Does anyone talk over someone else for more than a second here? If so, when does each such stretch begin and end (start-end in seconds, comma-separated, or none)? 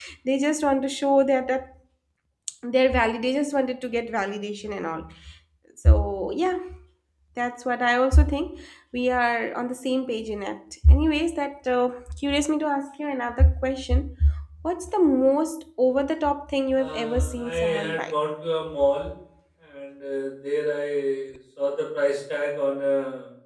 16.8-18.1